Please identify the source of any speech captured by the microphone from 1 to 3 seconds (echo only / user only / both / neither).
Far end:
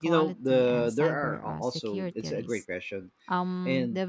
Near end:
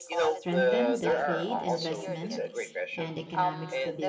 both